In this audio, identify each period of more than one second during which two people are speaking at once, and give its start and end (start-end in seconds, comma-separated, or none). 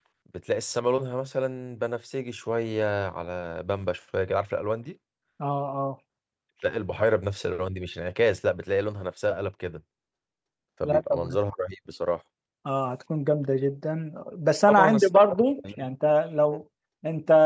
14.7-15.9